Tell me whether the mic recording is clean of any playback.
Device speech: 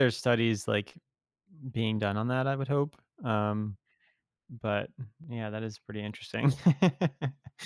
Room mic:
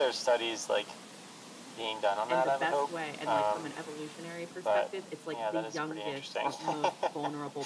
No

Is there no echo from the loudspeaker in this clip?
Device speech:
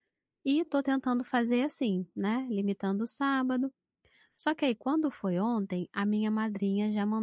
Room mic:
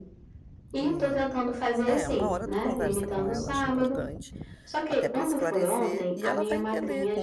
No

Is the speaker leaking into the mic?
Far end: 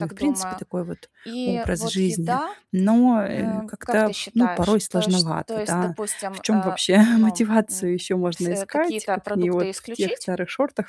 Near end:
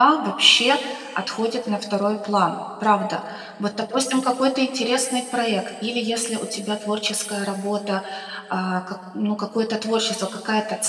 No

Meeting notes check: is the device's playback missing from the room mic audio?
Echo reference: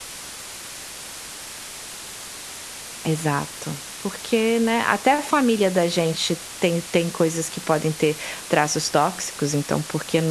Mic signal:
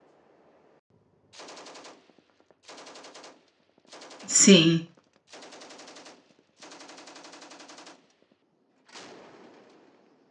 Yes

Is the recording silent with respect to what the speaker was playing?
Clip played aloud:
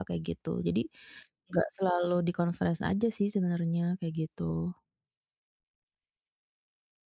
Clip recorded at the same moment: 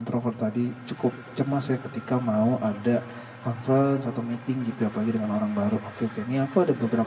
Yes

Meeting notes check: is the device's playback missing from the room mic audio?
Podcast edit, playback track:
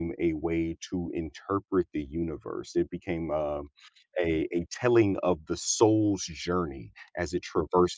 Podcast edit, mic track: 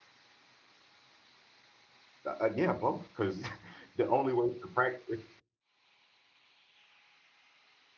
Yes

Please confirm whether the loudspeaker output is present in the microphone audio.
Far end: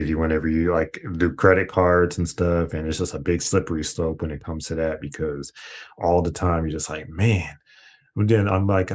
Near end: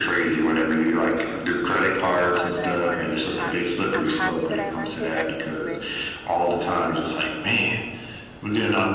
Yes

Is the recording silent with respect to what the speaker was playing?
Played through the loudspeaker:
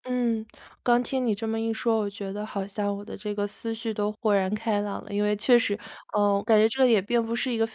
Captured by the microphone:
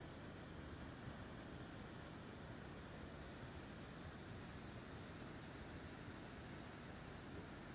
Yes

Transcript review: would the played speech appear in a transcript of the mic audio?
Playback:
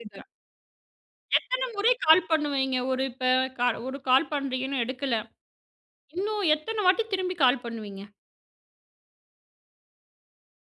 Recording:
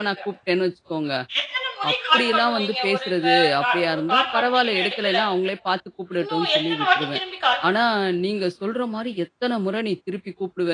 Yes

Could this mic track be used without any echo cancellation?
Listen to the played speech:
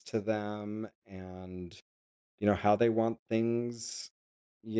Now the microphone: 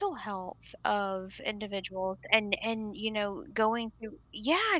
Yes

